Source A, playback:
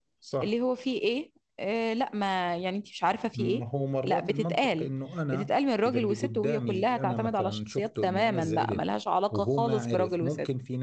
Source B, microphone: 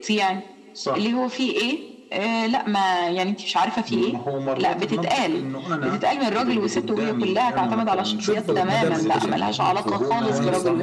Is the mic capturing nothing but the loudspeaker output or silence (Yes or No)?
No